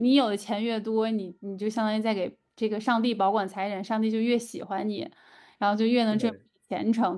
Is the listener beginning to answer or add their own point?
No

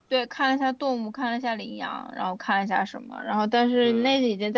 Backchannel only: Yes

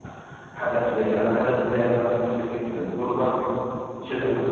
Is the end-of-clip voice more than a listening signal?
No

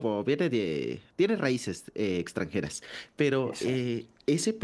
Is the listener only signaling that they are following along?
Yes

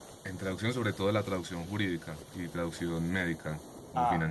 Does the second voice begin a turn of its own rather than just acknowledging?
Yes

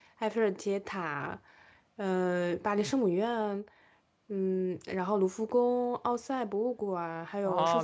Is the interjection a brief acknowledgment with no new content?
No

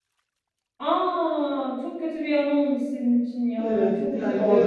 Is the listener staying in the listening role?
No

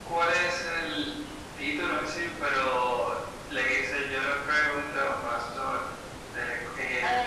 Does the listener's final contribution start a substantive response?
Yes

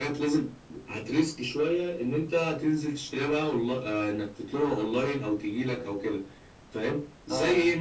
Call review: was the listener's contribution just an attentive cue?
Yes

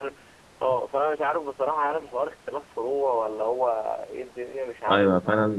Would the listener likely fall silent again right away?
No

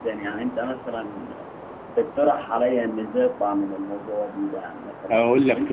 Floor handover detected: Yes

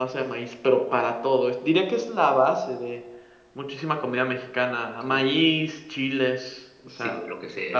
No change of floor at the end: No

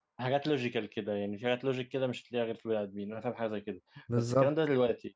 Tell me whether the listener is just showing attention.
Yes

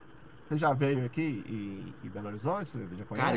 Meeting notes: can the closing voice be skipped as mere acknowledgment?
No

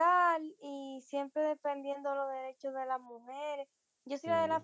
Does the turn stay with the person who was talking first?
Yes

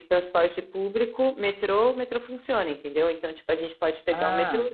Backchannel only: Yes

